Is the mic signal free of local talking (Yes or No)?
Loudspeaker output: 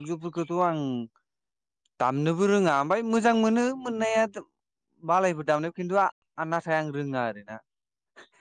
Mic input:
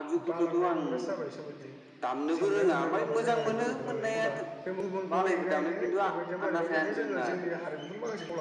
No